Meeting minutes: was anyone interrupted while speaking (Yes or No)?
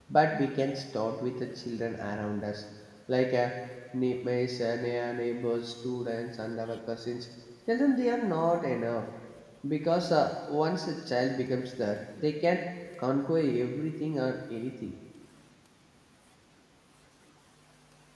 No